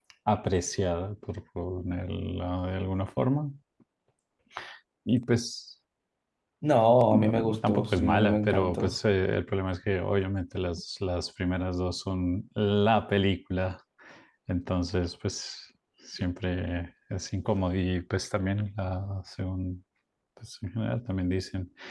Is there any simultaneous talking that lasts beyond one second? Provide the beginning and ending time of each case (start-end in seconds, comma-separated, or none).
7.1-8.9